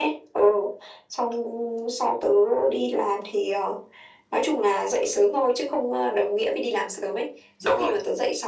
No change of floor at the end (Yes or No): Yes